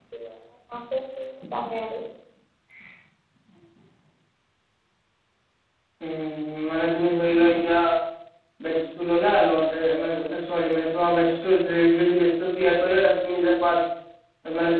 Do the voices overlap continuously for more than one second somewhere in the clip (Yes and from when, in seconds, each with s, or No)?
No